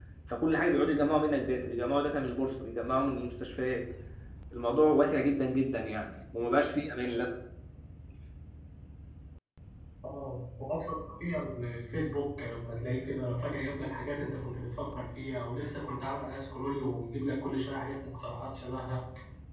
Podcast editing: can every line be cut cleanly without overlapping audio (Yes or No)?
Yes